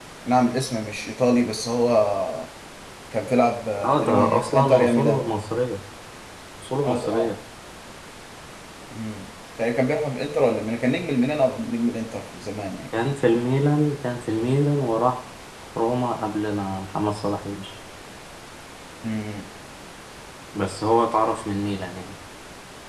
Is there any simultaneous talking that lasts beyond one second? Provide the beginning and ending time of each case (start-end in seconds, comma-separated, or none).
3.8-5.2